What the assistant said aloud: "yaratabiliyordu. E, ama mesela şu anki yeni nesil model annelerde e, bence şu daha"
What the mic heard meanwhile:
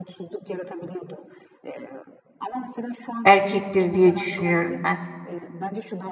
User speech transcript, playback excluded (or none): erkektir diye düşünüyorum ben.